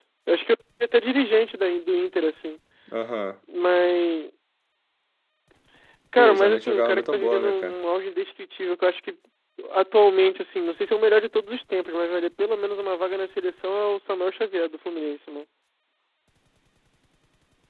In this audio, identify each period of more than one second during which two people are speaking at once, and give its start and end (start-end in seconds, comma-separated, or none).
6.2-7.8